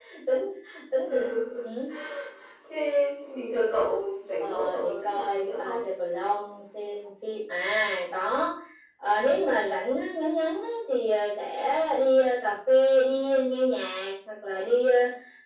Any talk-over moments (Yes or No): Yes